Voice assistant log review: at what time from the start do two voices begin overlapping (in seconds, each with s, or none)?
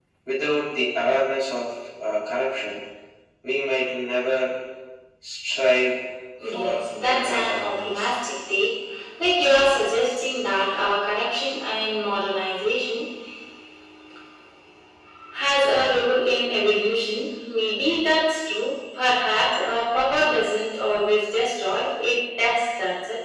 6.5 s